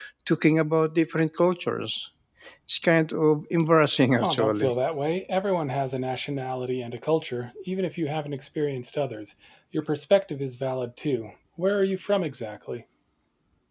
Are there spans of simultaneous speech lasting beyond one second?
No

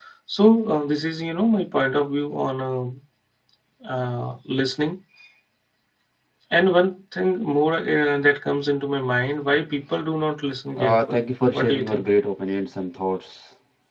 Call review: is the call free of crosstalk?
No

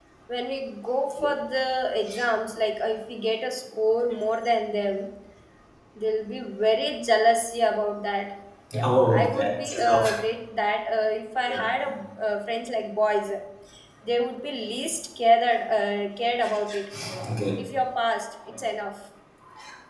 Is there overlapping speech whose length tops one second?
Yes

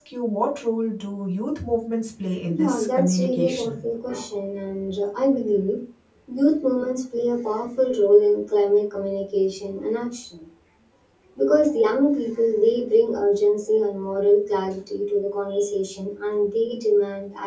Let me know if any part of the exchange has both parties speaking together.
Yes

